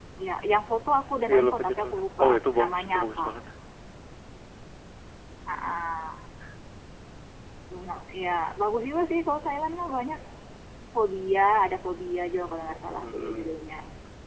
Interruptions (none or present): present